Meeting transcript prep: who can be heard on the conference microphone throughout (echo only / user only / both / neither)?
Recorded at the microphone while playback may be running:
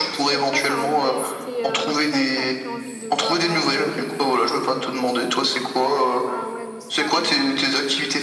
both